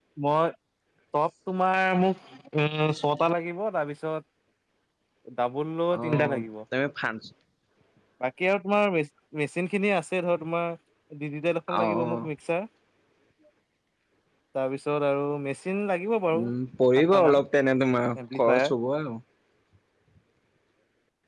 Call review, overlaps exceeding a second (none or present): none